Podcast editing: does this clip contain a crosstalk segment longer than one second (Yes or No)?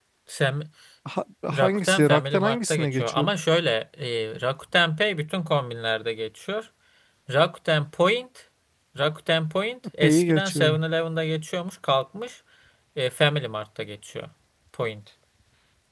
Yes